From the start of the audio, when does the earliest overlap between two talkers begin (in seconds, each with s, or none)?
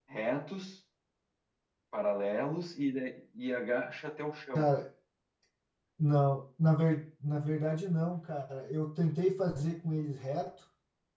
none